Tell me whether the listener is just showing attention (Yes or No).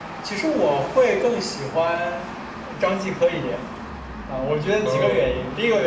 Yes